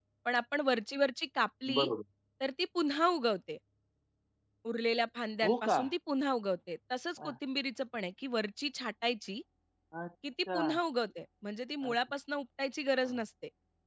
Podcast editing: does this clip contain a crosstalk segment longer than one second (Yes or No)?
No